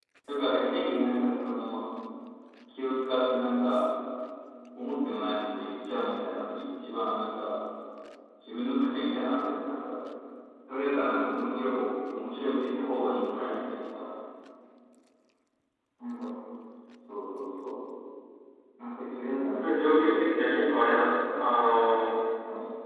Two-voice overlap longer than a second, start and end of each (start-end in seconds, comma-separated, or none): 19.6-21.1